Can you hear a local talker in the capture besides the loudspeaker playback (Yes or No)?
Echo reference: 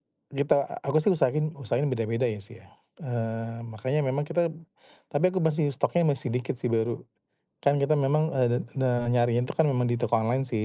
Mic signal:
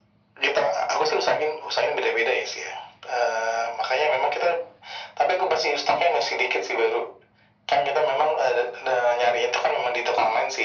No